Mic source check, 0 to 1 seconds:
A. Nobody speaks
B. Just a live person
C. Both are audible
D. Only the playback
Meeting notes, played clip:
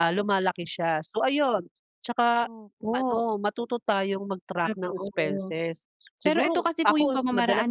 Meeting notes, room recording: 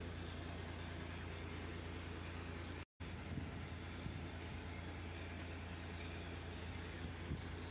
A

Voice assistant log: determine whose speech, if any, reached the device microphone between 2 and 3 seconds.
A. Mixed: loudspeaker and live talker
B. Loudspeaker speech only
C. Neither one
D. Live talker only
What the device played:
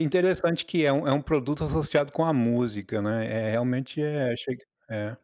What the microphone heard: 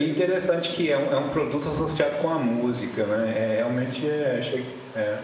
B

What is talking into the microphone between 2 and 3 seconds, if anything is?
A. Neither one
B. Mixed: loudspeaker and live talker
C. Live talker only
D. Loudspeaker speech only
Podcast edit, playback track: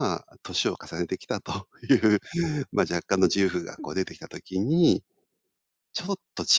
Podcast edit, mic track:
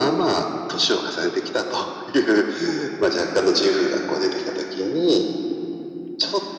D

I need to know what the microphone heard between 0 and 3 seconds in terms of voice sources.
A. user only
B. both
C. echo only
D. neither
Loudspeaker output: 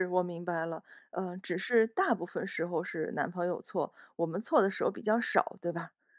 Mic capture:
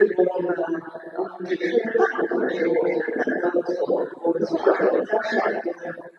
C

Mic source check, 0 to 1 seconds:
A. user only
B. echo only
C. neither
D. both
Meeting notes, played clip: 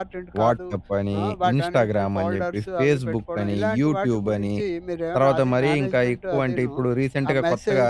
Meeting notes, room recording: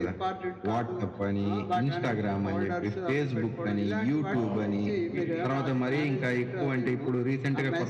B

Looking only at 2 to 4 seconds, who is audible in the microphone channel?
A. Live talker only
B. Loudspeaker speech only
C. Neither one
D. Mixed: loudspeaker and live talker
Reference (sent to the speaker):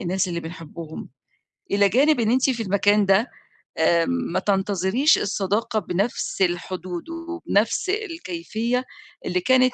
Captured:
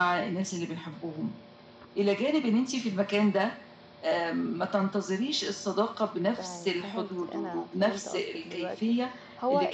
B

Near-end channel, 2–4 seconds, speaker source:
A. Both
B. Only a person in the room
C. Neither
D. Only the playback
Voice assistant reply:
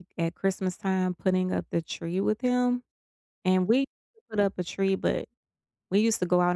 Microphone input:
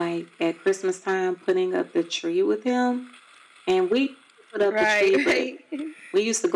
D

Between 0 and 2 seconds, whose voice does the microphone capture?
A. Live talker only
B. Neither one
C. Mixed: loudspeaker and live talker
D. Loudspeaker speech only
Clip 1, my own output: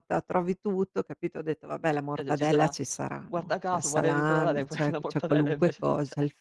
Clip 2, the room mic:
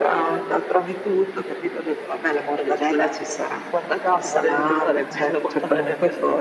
D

